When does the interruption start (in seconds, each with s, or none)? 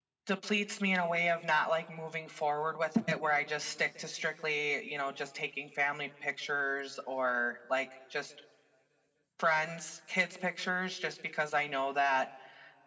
none